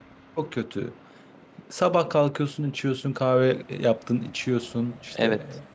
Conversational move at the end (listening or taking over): taking over